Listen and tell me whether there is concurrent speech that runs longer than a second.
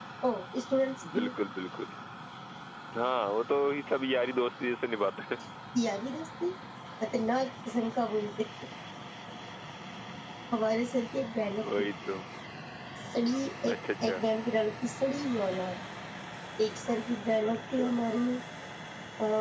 No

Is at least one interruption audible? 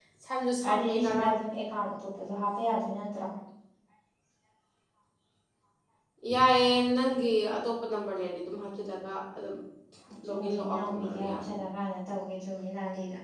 Yes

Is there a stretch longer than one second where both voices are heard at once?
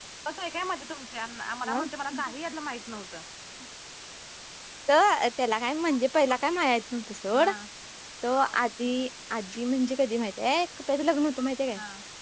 No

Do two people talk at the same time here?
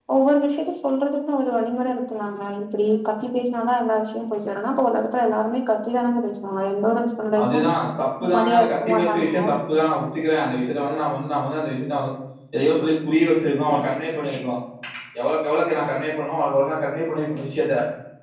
Yes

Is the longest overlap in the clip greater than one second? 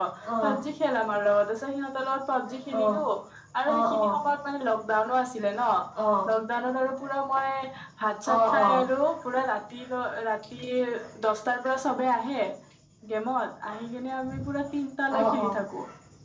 No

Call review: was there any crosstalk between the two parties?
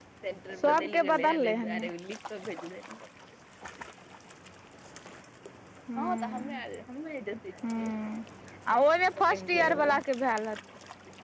Yes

